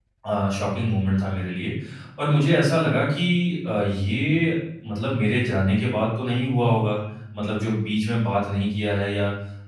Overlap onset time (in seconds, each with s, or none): none